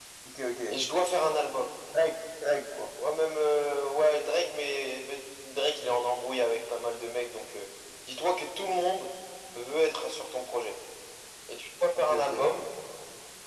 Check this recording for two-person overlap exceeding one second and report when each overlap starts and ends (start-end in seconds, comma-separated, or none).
none